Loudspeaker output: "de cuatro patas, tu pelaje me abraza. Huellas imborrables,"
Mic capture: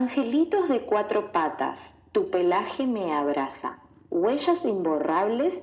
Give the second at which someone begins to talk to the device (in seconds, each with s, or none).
none